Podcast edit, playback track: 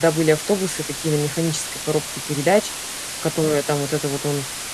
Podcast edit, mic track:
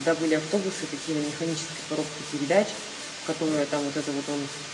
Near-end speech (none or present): none